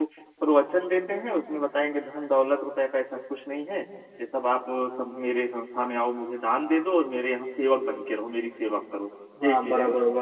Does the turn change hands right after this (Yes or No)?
Yes